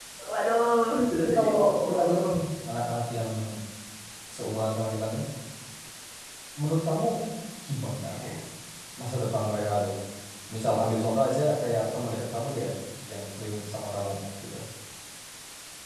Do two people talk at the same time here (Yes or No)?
Yes